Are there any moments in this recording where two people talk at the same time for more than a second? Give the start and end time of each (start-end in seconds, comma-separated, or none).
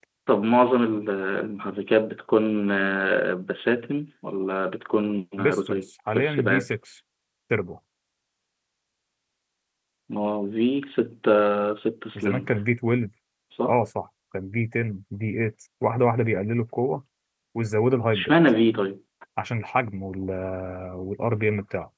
5.4-6.7